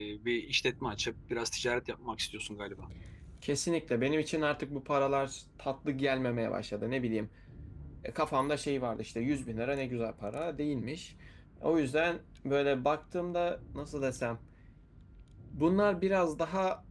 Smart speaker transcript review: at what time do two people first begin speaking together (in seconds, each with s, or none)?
none